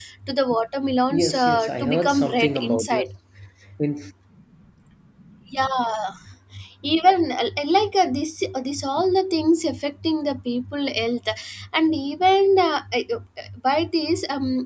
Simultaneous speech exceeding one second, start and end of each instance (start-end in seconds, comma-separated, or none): 1.1-3.1